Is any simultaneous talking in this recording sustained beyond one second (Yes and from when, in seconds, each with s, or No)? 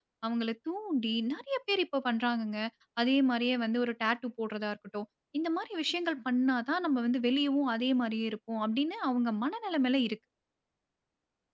No